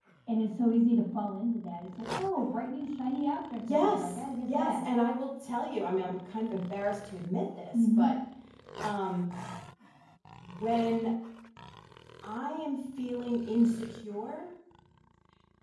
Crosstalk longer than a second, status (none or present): present